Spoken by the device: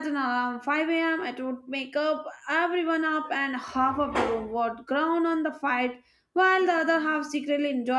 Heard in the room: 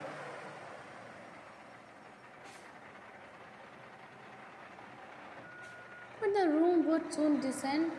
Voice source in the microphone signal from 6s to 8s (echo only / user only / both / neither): user only